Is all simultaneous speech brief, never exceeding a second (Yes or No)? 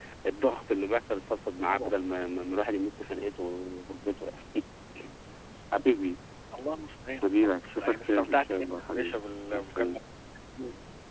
No